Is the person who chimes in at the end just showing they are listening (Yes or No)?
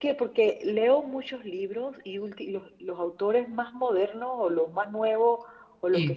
Yes